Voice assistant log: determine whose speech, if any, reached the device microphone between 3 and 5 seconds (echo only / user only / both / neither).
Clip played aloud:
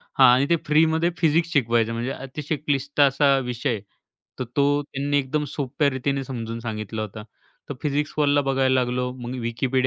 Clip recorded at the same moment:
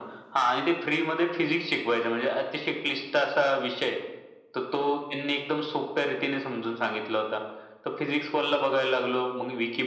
echo only